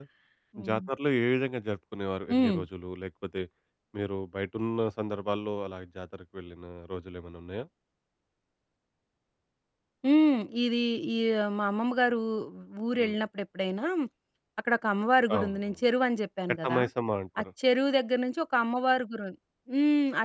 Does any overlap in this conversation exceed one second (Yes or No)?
No